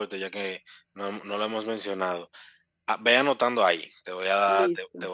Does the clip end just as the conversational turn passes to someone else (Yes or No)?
No